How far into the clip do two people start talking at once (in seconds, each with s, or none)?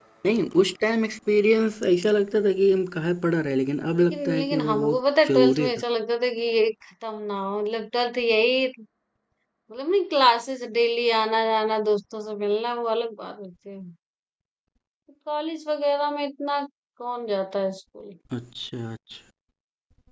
3.9 s